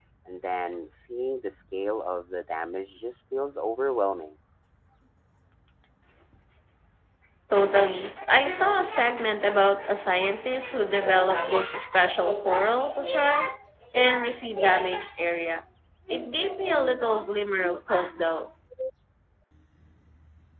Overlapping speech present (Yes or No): No